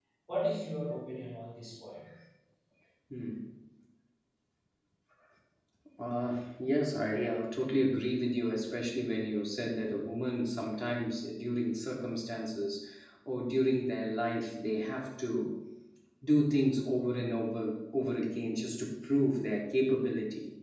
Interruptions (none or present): none